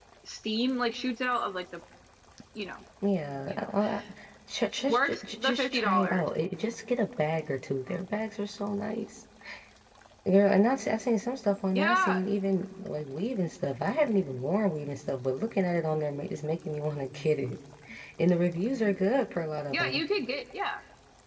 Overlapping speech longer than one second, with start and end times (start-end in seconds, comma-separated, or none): 4.8-6.2